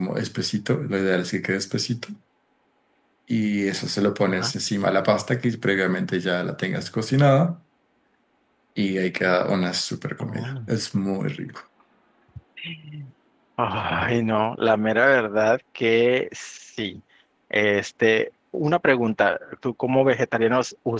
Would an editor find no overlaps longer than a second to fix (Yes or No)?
Yes